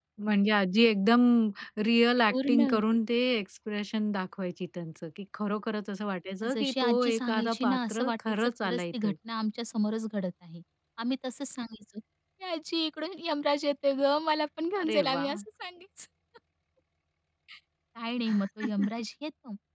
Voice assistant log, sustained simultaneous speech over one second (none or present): present